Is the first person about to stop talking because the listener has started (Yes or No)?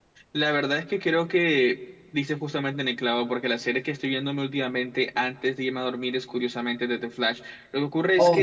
No